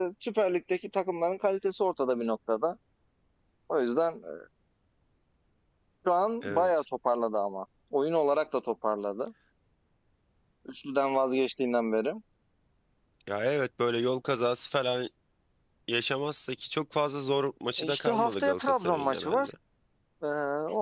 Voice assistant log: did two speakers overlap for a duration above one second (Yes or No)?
Yes